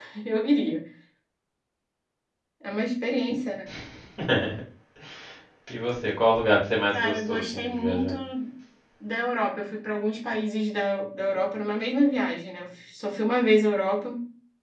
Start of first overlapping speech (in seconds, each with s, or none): 6.9 s